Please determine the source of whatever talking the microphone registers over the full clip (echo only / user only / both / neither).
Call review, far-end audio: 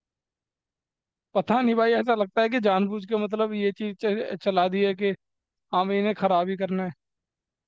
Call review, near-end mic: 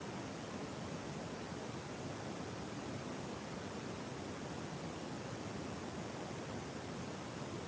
neither